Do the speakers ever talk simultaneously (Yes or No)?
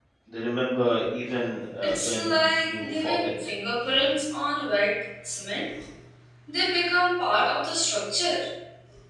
Yes